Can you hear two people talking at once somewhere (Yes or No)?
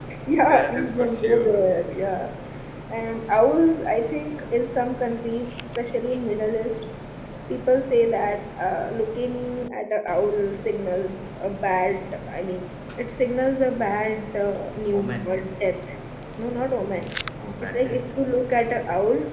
Yes